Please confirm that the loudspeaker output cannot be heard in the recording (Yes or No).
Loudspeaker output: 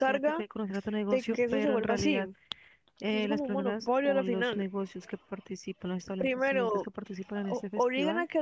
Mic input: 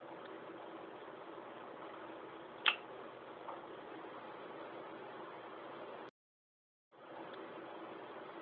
Yes